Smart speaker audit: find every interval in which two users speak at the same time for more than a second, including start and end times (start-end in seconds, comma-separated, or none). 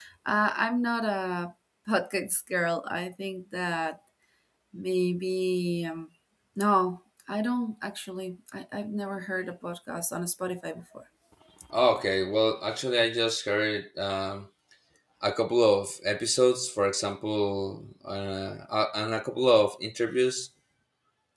none